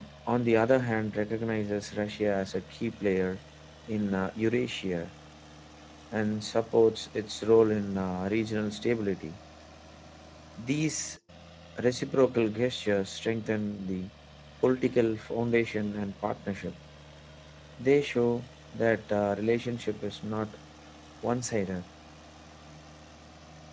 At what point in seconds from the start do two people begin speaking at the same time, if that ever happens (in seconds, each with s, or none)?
none